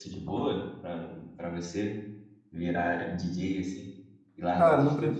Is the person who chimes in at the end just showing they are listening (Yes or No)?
No